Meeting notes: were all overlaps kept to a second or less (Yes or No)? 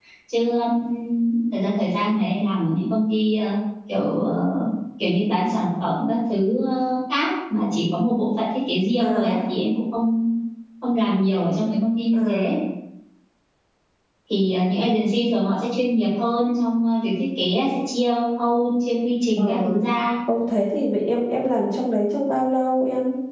Yes